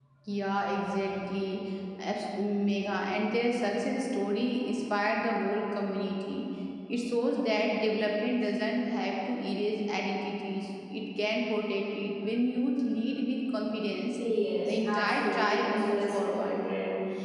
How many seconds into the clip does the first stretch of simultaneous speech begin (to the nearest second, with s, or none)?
15 s